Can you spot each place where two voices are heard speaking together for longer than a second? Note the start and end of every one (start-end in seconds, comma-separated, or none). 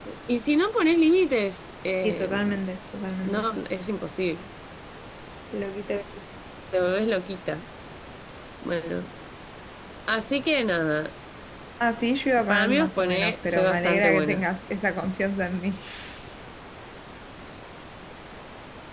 12.5-14.4